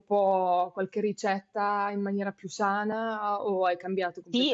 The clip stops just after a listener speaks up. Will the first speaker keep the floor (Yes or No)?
No